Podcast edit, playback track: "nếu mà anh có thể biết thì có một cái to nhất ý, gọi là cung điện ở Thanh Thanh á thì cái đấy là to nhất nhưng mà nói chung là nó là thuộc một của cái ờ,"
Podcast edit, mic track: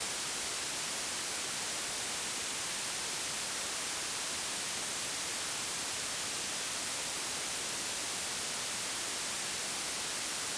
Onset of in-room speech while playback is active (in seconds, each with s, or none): none